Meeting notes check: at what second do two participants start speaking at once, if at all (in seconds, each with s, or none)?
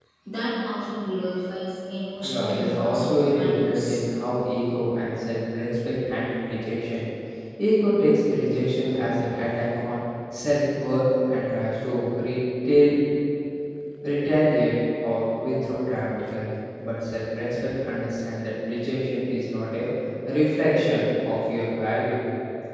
2.2 s